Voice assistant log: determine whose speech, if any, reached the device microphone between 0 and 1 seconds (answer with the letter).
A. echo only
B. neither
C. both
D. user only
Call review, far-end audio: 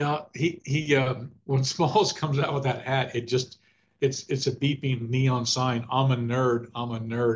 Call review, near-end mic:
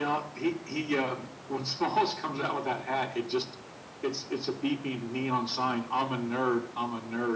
A